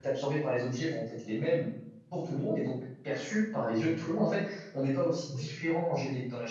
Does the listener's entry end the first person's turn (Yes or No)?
No